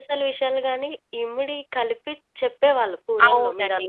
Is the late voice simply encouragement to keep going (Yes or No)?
No